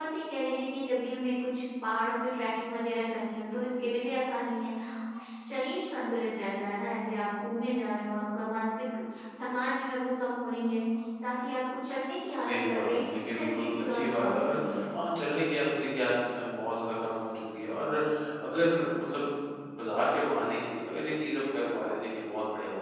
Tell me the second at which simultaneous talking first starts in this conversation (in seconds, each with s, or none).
12.4 s